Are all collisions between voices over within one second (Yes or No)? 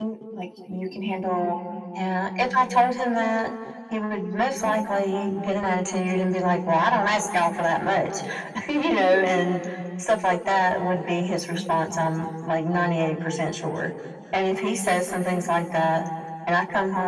Yes